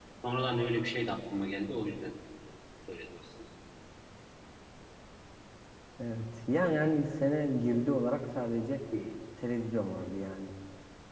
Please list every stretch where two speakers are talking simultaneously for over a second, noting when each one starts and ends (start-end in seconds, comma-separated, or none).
none